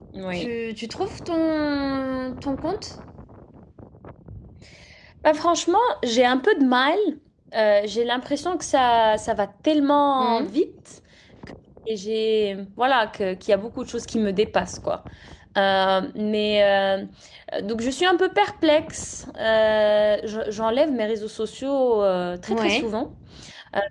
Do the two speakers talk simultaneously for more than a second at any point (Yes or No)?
No